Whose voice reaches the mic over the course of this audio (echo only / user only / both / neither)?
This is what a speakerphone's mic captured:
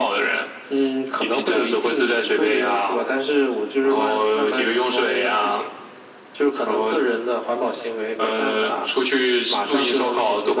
echo only